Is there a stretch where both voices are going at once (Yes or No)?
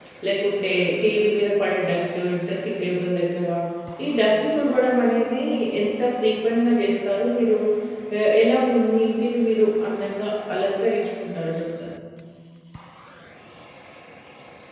No